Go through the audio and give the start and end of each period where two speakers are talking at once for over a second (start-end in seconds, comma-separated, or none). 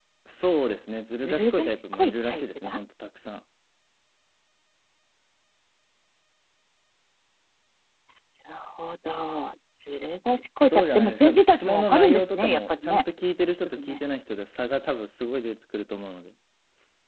1.2-2.8, 10.6-13.0